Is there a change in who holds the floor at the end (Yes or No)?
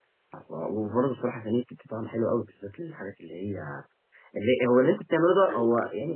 No